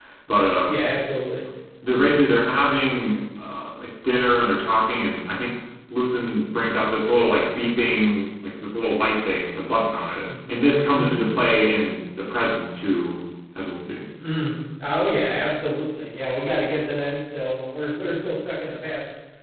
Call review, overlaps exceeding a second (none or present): none